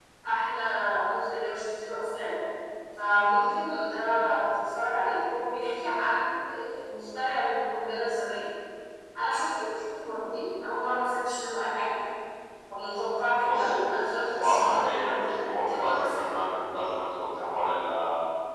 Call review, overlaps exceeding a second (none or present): present